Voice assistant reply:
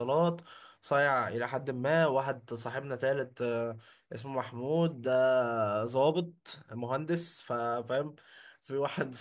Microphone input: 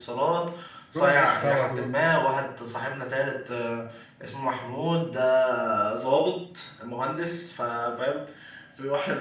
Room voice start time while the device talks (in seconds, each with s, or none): 0.9 s